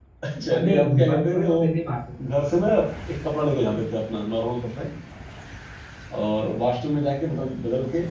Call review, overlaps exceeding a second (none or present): present